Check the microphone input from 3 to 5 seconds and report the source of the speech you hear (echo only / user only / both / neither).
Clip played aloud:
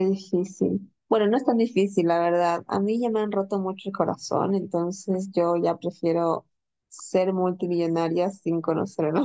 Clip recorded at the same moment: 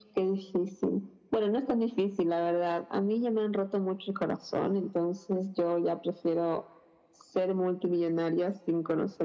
echo only